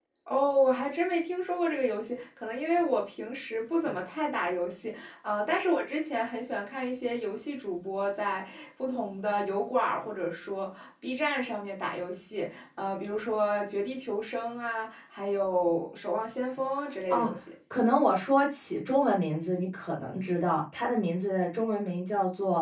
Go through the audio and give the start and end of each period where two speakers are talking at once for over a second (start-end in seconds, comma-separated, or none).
none